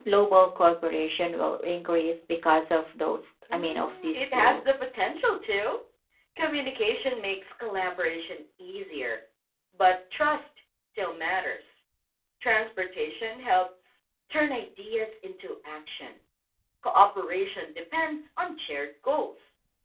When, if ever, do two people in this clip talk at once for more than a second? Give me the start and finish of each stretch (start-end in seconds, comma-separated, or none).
3.5-5.0